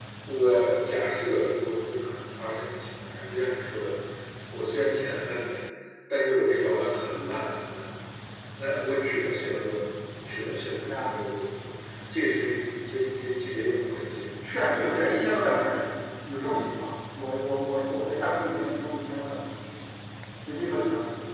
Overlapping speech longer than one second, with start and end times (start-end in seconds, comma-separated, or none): none